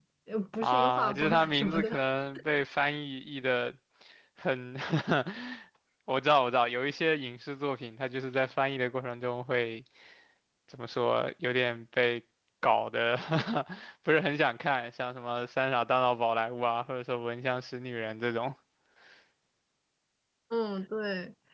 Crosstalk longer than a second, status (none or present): present